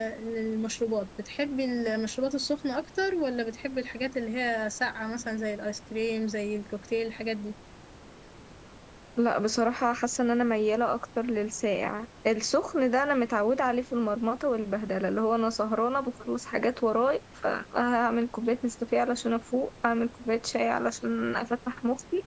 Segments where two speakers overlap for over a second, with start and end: none

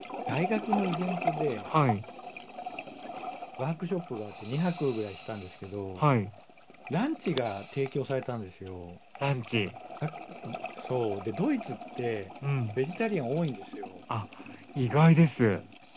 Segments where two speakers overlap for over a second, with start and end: none

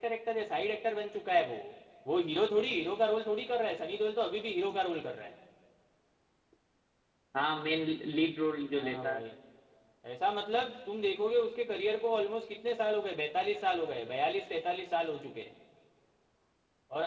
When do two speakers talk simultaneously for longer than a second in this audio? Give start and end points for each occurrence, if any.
none

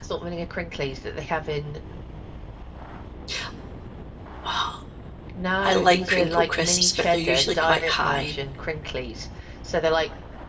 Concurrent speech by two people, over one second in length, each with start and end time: 5.6-8.3

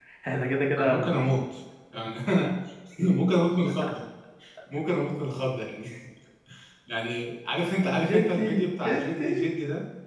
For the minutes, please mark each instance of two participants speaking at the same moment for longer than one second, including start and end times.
7.8-9.5

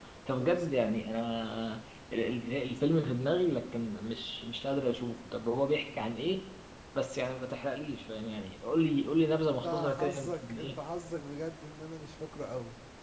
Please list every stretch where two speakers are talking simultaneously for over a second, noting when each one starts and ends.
9.4-10.8

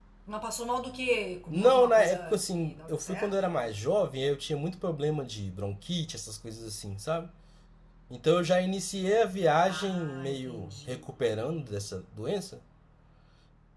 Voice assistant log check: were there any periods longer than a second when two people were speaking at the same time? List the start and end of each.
1.5-3.8, 9.7-11.0

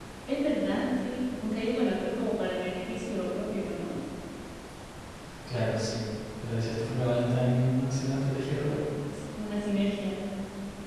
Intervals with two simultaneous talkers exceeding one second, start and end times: none

